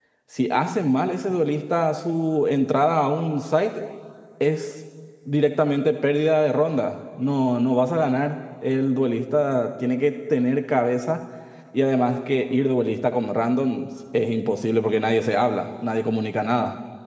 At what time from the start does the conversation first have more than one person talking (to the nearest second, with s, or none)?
none